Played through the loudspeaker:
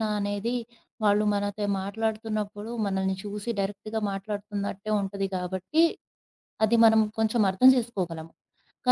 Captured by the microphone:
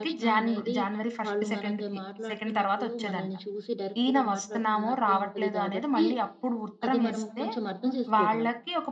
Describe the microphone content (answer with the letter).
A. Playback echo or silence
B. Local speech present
B